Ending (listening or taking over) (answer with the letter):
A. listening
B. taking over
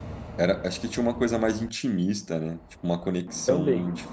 A